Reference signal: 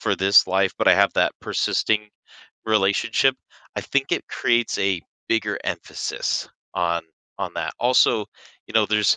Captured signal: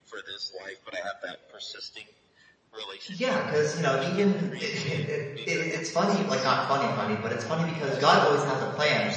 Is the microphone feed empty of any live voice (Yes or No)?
No